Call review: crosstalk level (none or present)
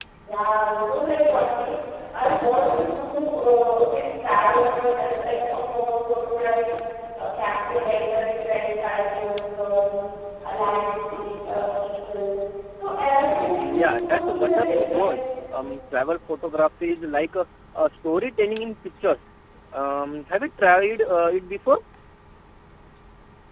present